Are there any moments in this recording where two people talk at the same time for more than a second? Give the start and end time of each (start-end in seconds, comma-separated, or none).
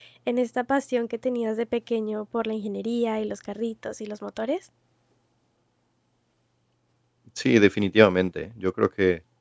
none